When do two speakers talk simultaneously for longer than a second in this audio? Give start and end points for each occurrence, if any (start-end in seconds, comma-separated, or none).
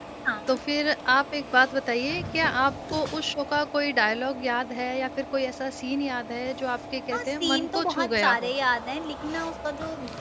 7.1-8.5